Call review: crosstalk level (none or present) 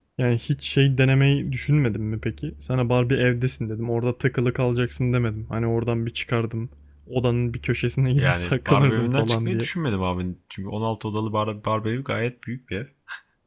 present